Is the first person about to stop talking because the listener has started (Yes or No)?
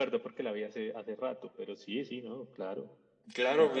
Yes